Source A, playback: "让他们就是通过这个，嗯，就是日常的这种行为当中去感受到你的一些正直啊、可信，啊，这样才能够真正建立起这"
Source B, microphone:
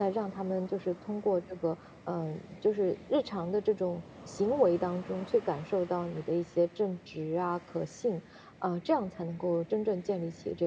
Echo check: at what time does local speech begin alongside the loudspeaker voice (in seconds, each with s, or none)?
none